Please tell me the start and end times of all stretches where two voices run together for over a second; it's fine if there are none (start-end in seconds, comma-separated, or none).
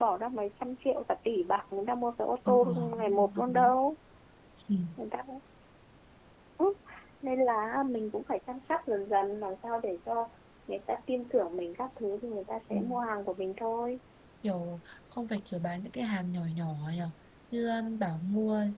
2.5-3.7